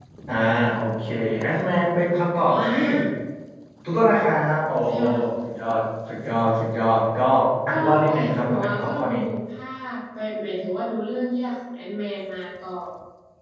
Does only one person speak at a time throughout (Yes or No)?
No